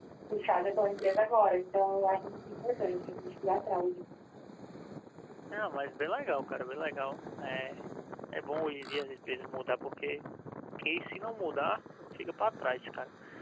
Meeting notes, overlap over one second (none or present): none